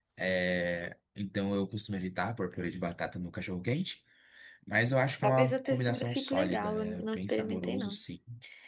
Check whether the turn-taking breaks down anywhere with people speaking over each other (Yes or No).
Yes